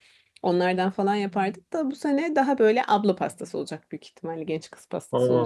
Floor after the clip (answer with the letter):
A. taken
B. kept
A